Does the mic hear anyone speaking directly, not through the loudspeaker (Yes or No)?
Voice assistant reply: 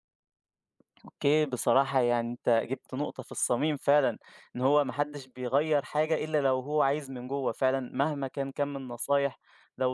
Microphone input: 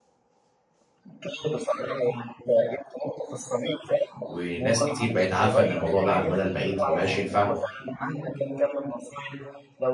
Yes